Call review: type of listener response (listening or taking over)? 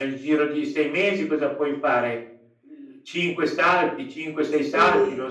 taking over